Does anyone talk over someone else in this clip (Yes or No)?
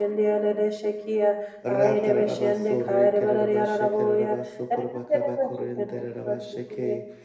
Yes